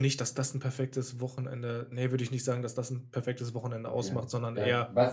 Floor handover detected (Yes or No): Yes